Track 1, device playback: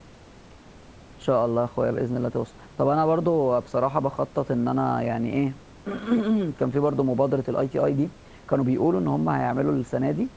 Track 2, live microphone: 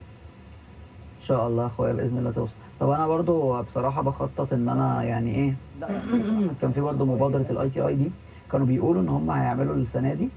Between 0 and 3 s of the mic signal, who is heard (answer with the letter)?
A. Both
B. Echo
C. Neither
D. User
B